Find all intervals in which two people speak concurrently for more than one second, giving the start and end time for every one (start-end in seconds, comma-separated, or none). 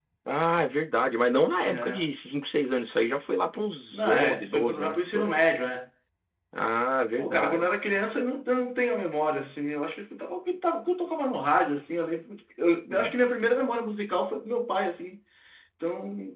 3.9-5.4